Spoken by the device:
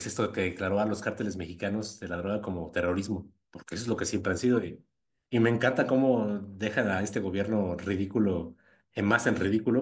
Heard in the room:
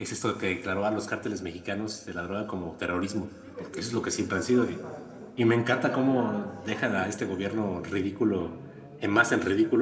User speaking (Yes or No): Yes